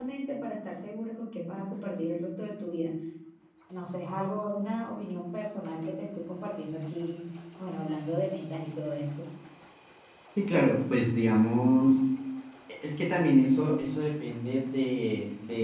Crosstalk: none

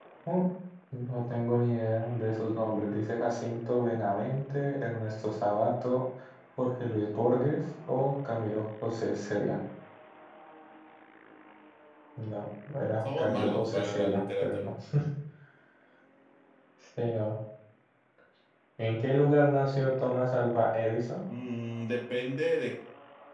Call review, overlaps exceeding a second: present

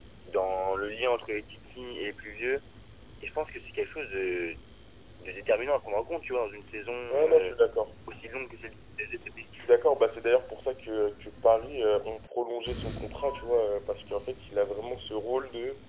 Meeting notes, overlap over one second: none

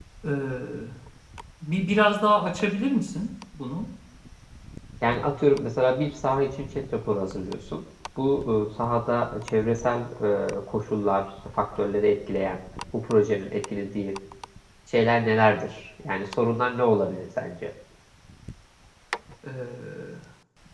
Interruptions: none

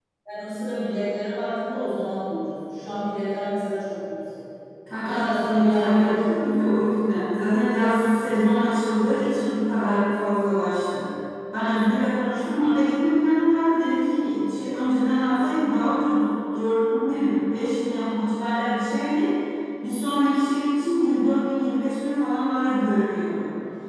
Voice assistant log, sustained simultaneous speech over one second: present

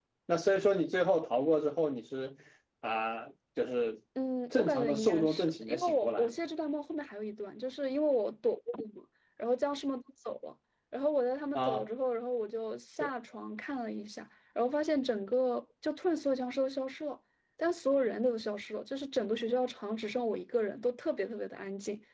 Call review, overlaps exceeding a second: present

